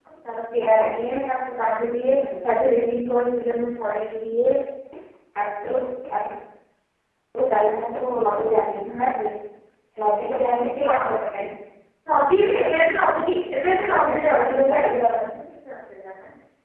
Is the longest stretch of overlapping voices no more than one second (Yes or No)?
No